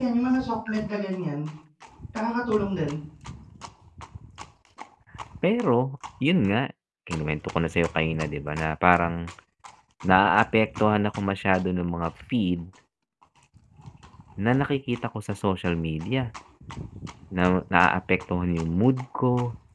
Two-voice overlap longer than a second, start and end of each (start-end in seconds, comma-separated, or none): none